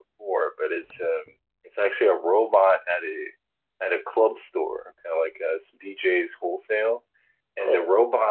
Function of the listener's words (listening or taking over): listening